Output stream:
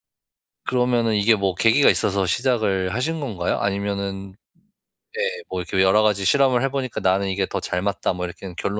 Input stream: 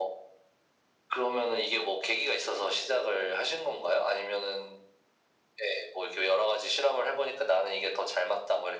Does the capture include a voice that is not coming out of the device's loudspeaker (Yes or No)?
No